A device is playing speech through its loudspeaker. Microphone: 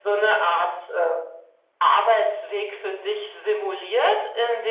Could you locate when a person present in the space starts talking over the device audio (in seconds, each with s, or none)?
none